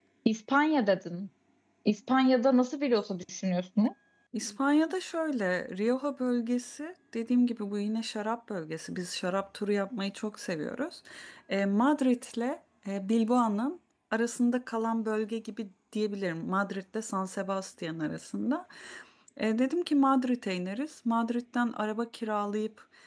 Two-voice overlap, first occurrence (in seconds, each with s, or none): none